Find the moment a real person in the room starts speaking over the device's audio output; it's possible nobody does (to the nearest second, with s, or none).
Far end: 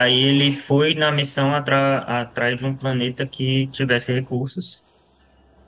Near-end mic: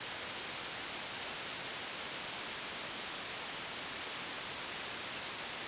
none